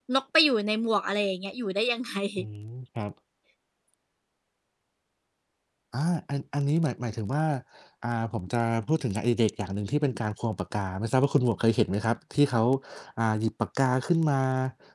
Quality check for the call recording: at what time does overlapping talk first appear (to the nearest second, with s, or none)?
none